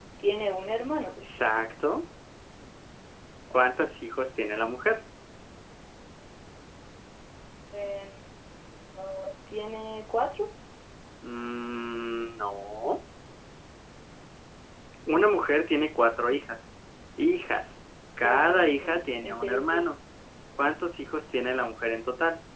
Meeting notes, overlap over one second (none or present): present